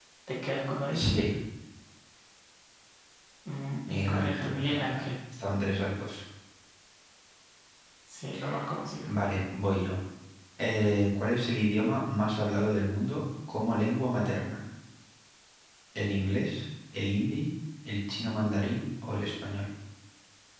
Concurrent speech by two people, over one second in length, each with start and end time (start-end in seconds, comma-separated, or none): 3.9-5.1